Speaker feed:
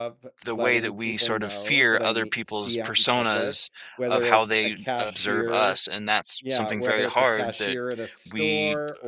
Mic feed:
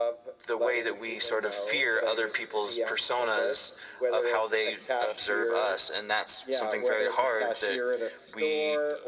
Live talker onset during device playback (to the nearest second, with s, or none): none